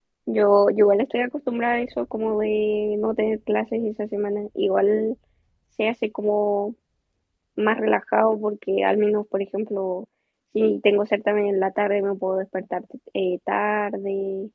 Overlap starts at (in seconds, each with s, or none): none